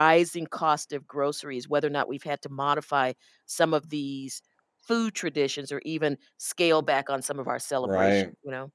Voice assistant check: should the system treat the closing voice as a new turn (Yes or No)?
Yes